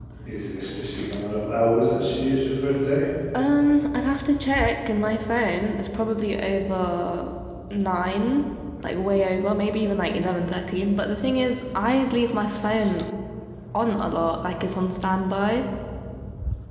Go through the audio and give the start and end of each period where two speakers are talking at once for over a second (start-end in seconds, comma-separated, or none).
none